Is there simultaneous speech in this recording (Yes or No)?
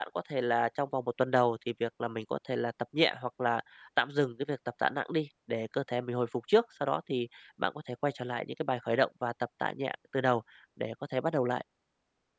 No